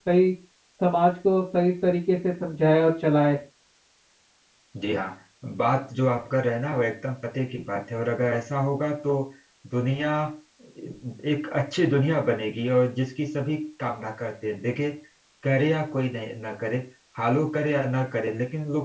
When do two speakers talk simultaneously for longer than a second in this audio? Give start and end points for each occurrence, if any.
none

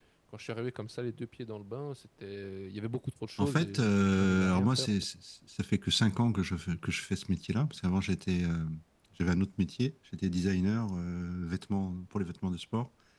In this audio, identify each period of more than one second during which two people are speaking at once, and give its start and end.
3.4-5.0

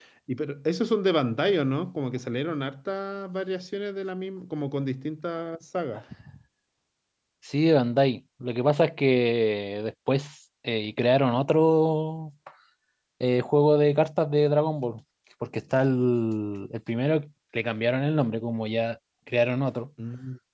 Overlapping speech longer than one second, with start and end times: none

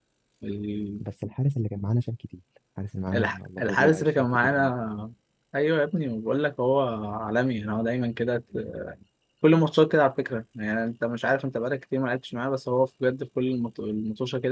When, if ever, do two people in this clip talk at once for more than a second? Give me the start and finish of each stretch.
3.1-4.7

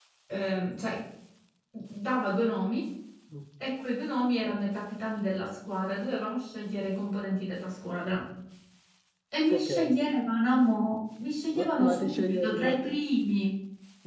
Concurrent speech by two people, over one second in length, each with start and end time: 11.6-12.9

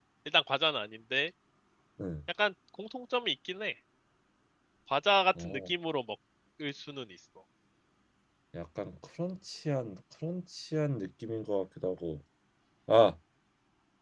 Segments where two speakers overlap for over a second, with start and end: none

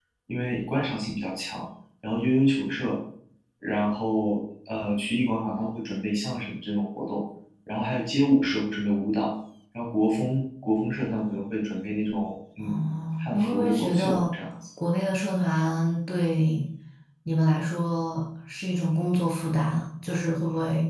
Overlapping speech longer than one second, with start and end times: 12.6-14.3

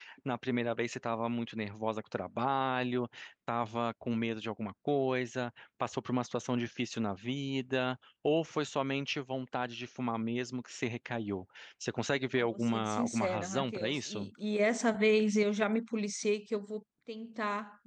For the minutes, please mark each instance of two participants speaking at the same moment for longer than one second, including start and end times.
12.4-14.3

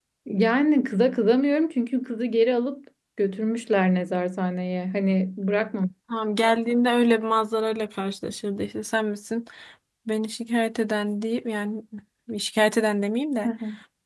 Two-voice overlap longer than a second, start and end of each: none

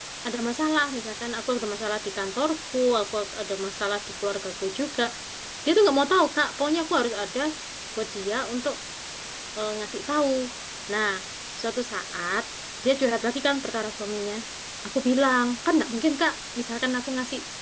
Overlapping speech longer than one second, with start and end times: none

